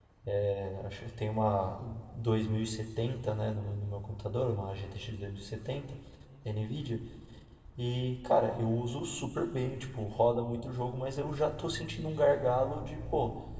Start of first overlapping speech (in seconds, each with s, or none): none